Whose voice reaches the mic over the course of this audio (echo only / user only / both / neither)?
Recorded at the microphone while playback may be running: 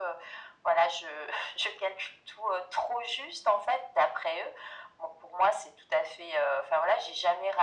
echo only